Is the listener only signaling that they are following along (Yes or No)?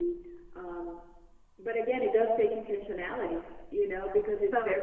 Yes